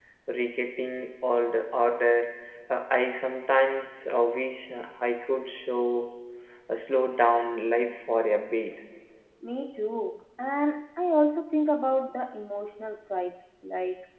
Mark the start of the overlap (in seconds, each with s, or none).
none